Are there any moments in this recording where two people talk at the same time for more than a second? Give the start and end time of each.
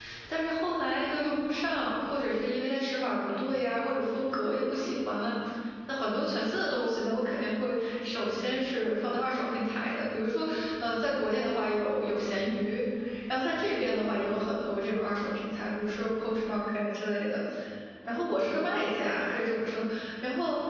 none

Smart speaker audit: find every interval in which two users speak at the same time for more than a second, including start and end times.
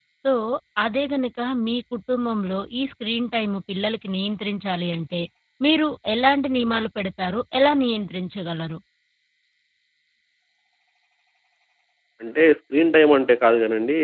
none

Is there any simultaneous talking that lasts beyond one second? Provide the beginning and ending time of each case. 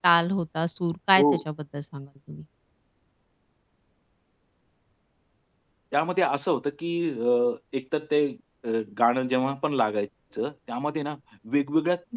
none

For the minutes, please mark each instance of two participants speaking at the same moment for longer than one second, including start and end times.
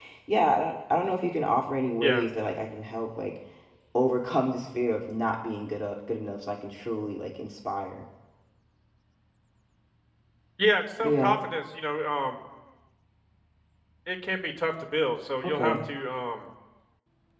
none

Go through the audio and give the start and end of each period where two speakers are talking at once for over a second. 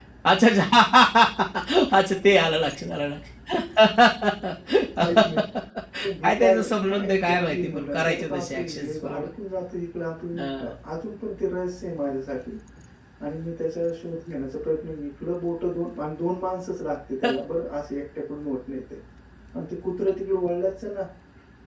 6.2-9.3

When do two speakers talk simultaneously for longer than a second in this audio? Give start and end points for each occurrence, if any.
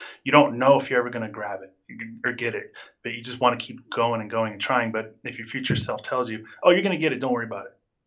none

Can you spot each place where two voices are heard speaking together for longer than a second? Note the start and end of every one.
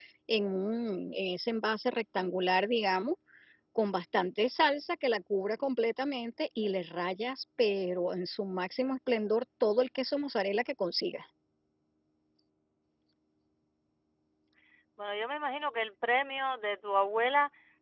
none

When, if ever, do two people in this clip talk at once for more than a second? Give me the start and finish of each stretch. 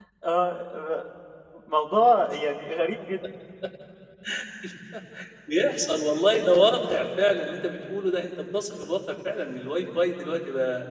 none

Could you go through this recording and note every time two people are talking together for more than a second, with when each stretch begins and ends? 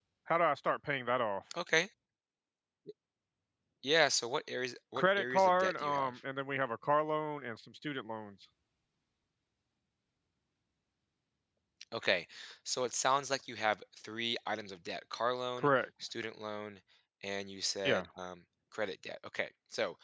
5.0-6.2

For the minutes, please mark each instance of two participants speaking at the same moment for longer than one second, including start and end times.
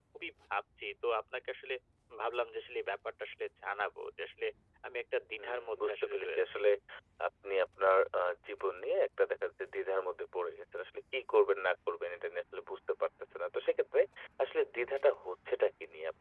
5.4-6.6

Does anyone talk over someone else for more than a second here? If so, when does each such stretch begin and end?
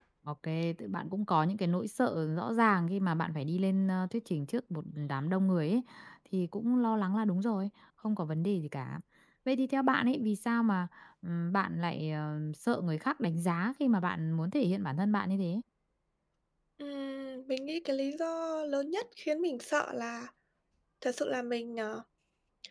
none

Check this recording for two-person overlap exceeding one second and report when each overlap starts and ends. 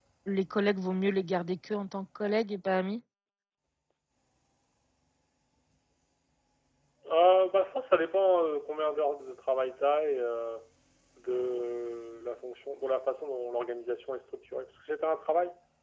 none

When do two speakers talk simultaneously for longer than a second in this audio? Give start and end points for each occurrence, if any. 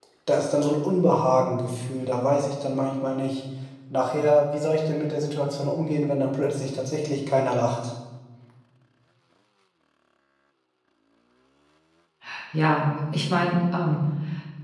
none

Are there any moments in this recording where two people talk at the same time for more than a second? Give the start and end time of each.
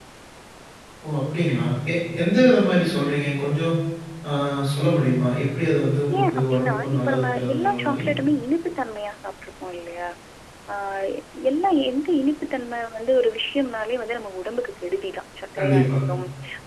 6.2-8.0

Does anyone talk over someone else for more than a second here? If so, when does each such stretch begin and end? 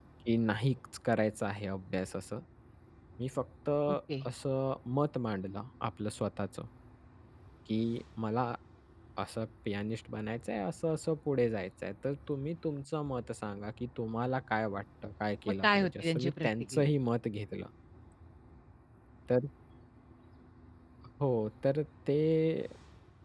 15.5-16.9

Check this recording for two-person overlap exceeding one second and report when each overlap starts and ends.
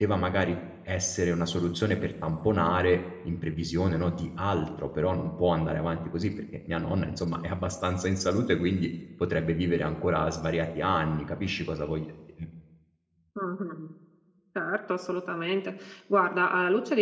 none

